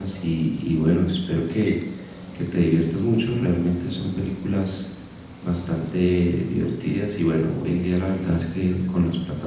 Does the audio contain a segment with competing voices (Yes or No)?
No